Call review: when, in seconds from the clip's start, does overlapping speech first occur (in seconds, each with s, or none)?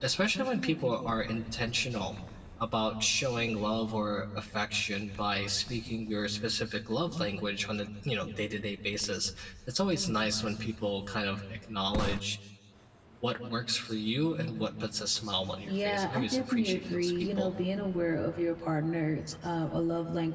15.7 s